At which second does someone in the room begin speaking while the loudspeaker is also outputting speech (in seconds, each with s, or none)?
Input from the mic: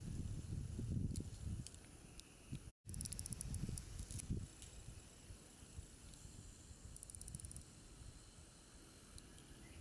none